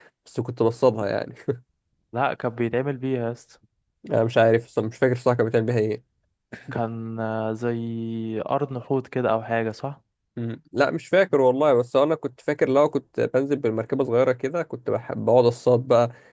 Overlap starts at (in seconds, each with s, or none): none